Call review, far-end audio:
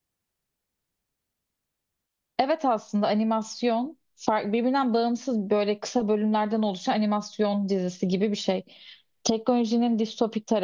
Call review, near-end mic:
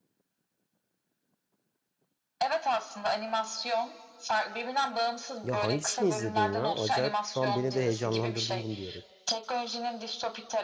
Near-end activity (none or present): present